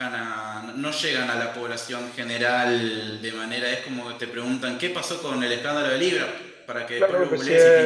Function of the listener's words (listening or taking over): taking over